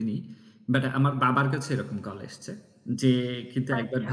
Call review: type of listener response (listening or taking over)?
listening